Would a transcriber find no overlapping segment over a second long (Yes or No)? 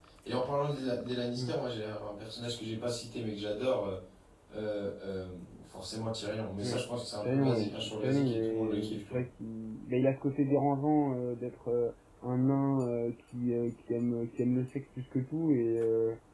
No